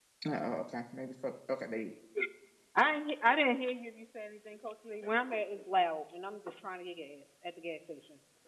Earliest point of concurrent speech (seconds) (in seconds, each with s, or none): none